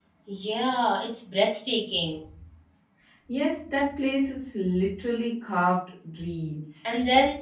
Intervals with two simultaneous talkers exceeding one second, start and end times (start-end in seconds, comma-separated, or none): none